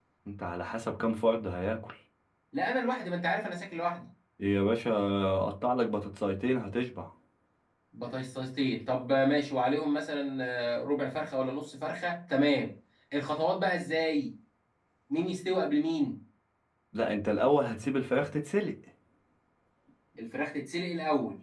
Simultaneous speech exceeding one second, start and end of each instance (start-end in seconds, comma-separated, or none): none